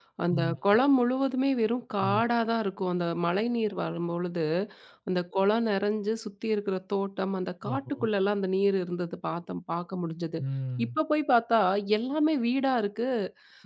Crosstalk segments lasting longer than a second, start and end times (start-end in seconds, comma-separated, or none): none